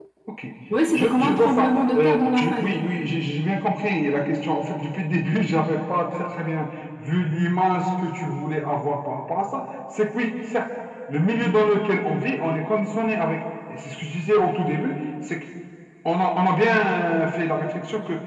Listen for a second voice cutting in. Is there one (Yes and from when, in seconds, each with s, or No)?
Yes, from 0.9 s